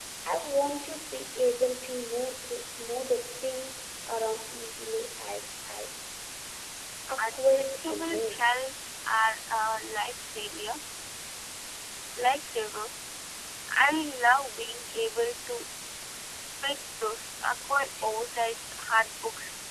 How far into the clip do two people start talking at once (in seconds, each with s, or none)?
7.2 s